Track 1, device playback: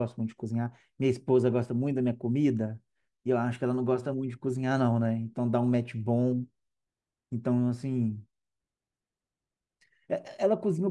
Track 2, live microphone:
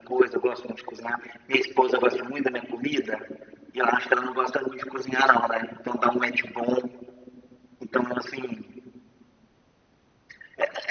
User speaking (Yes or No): No